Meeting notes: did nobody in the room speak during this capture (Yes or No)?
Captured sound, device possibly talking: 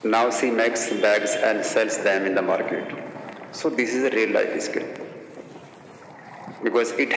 Yes